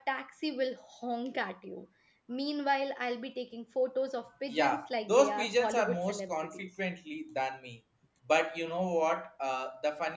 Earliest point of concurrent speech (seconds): 4.5 s

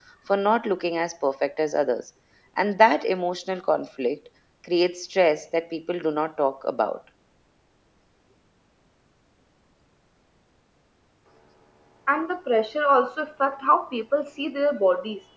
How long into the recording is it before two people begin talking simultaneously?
none

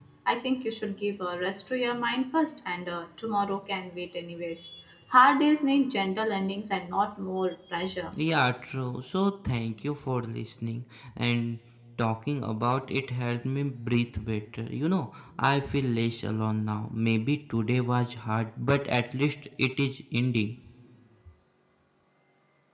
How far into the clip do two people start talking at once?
none

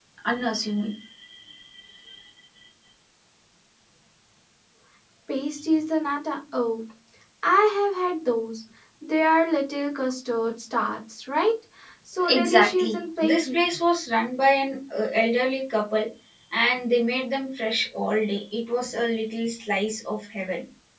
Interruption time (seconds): 12.2 s

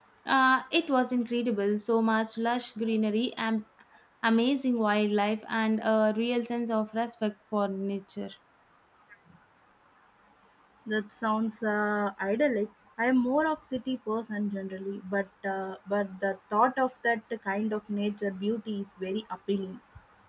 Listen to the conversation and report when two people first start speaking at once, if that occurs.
none

